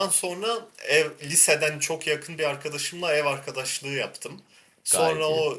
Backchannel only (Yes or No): Yes